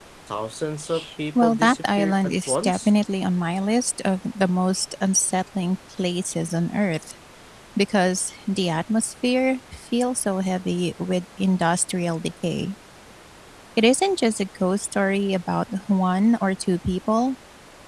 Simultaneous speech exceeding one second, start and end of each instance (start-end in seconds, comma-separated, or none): 1.4-2.9